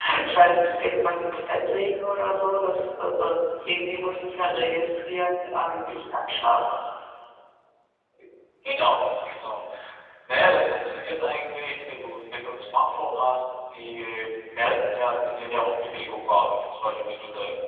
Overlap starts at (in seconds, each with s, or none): none